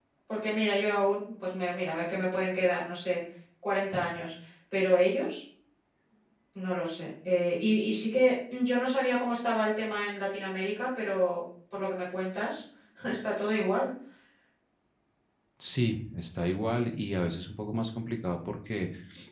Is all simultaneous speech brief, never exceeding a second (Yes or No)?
Yes